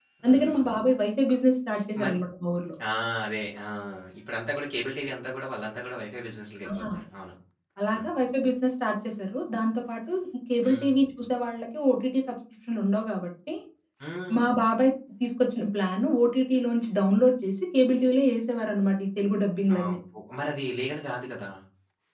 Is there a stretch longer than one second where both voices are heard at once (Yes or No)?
No